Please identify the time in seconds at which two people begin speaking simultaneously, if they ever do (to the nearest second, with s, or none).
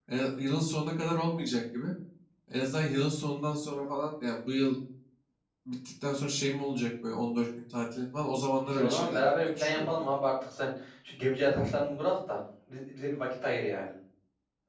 9 s